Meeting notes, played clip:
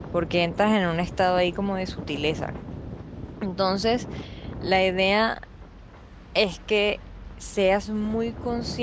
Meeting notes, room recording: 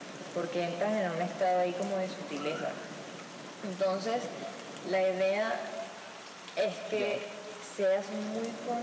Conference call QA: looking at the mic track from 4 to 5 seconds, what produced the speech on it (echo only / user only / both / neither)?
echo only